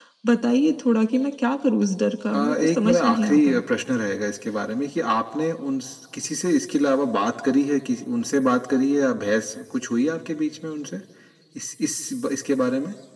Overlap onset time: 2.3 s

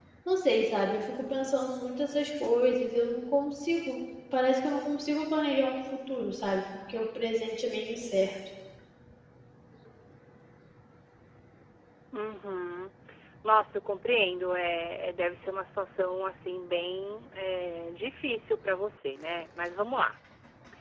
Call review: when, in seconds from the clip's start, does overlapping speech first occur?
none

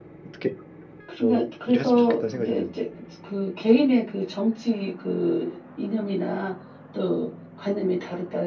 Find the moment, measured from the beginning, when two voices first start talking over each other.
1.2 s

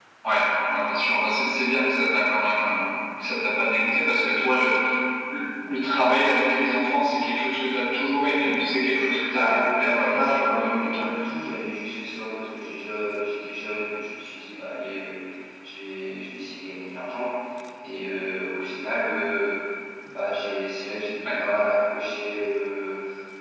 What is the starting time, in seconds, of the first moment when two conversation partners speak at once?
9.3 s

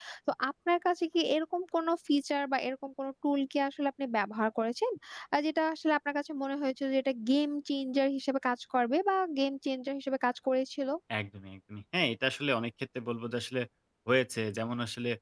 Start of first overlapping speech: none

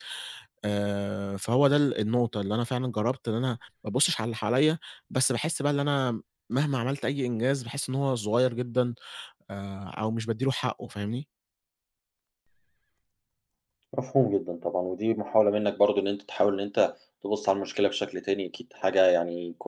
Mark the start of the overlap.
none

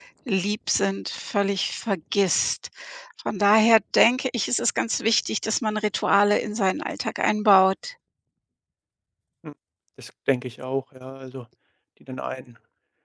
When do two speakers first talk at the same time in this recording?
none

